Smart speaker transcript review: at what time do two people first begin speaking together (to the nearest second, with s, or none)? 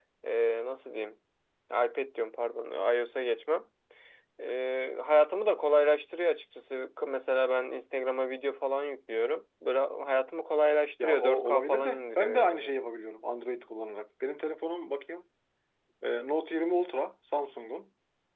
11 s